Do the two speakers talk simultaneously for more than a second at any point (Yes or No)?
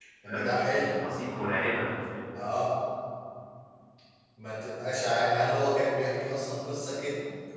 No